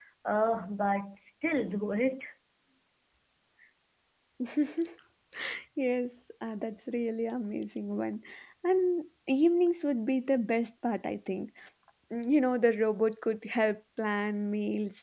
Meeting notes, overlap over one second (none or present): none